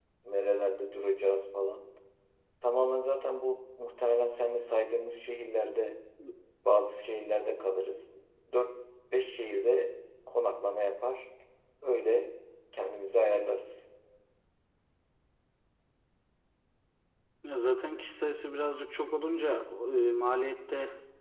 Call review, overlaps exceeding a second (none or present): none